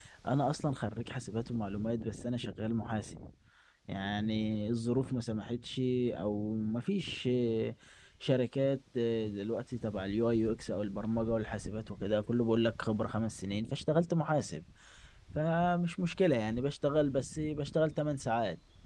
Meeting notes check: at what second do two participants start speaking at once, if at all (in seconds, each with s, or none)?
none